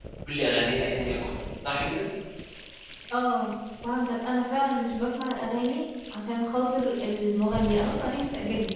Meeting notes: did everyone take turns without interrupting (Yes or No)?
Yes